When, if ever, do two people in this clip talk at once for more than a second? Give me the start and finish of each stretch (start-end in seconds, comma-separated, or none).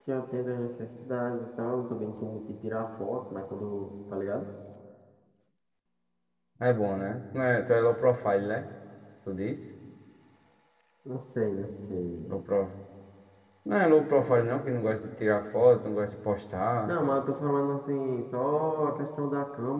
none